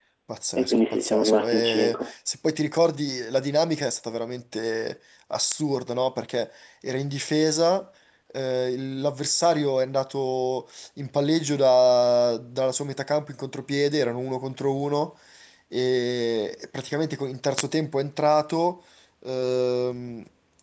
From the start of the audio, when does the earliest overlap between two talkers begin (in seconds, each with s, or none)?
0.6 s